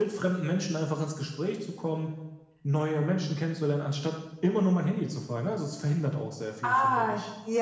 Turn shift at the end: Yes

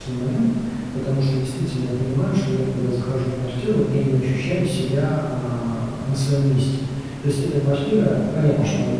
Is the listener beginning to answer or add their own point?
No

